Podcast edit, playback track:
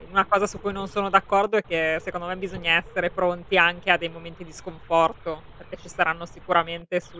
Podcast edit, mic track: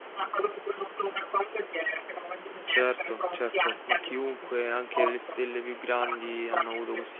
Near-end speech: present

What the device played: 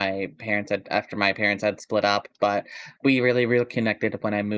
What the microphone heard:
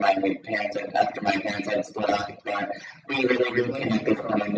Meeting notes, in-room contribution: present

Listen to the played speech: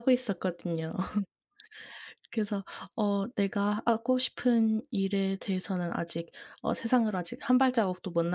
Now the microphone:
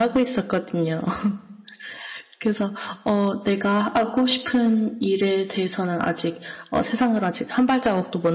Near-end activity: none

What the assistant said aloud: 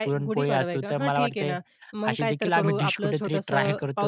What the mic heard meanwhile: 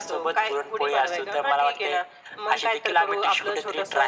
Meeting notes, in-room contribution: none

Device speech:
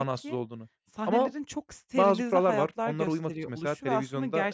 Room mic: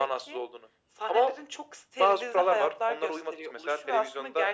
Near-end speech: none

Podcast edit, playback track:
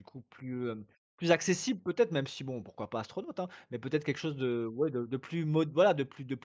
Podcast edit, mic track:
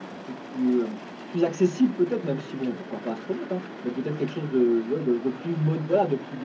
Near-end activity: none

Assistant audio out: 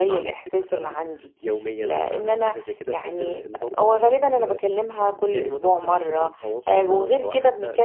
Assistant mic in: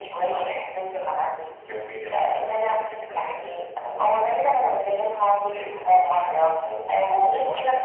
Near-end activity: none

